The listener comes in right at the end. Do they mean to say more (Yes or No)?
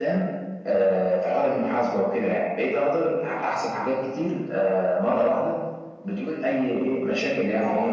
Yes